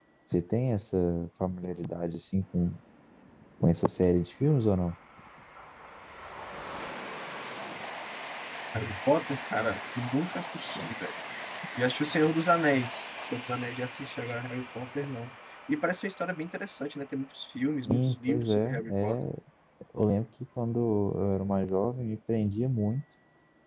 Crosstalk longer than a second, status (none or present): present